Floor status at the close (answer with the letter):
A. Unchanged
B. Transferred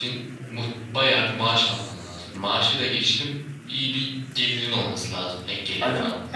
B